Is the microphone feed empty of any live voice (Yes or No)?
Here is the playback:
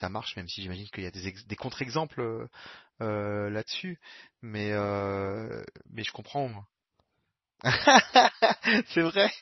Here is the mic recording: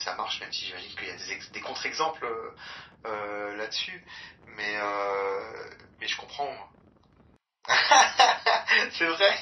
Yes